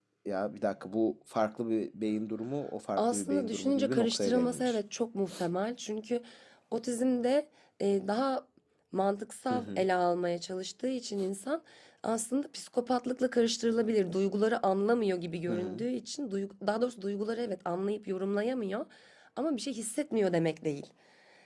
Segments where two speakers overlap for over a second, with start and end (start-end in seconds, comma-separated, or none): 3.0-4.8